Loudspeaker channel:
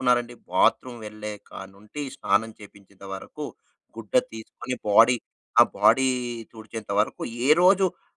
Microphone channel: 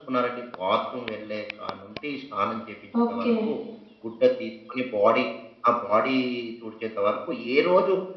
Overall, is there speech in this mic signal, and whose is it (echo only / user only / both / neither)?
both